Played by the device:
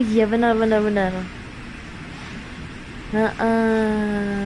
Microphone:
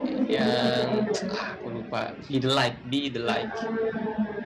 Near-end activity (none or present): present